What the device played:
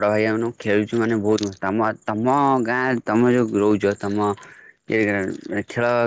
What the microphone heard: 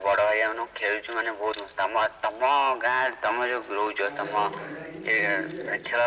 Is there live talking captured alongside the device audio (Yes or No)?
Yes